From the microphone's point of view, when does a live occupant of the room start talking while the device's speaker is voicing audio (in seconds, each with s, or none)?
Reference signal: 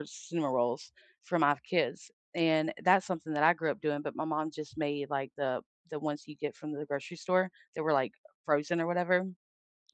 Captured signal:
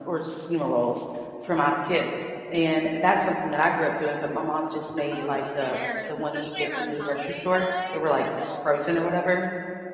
5.1 s